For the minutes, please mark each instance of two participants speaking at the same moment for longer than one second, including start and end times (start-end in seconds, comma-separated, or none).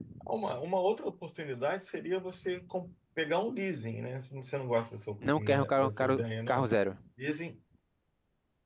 5.2-6.7